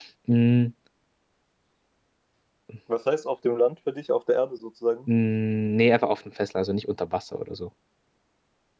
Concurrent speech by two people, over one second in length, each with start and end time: none

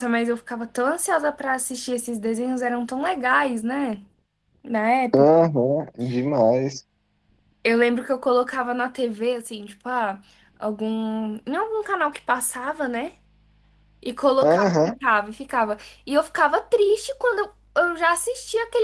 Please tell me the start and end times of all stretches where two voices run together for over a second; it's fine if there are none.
none

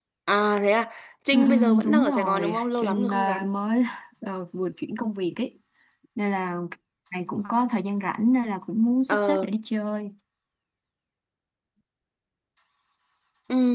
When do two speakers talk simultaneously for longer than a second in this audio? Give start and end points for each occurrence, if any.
1.3-3.4

